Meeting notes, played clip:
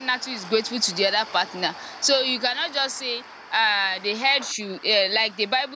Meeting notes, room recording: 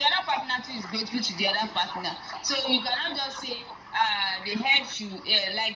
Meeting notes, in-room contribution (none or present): none